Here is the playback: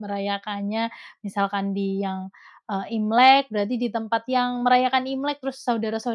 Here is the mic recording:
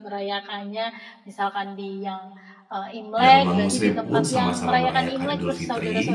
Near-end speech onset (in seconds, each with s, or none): 3.2 s